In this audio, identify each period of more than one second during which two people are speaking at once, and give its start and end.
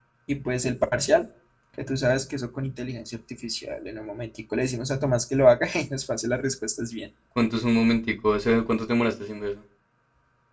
none

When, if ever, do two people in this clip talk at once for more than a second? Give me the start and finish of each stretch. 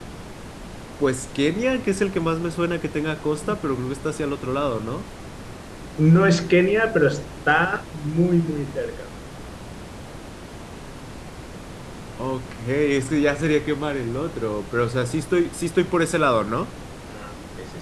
none

